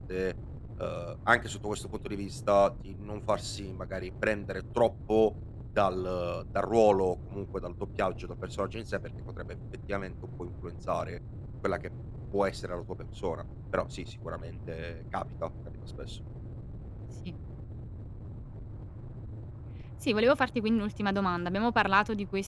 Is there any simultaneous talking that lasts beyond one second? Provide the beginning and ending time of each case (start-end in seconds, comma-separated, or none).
none